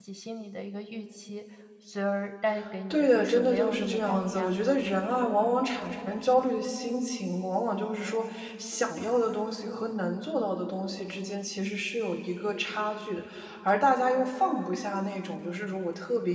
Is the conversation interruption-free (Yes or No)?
No